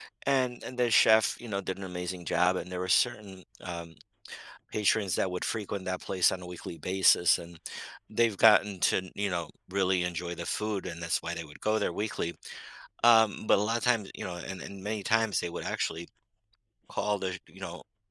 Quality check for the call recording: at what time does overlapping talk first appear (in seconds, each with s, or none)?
none